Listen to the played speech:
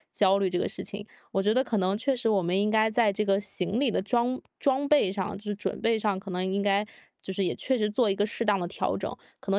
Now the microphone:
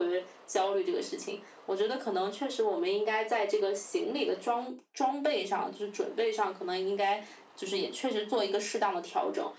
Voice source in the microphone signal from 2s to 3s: echo only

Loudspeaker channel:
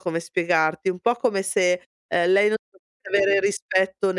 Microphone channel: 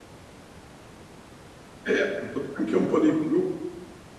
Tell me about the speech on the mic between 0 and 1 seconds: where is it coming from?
neither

